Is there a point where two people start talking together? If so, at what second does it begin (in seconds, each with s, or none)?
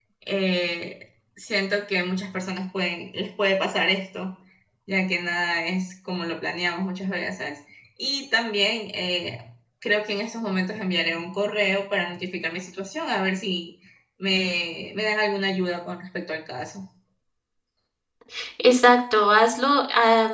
none